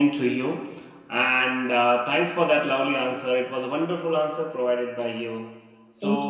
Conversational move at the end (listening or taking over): listening